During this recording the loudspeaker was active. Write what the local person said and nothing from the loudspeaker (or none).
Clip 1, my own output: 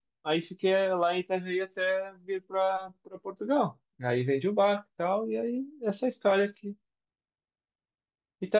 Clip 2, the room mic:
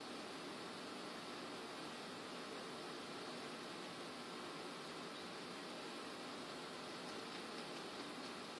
none